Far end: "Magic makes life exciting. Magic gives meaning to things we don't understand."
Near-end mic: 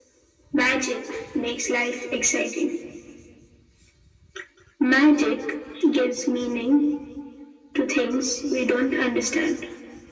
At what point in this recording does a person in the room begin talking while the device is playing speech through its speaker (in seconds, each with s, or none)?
none